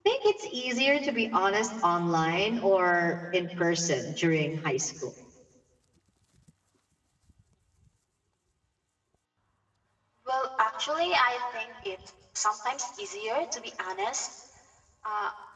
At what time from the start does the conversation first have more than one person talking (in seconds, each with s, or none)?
none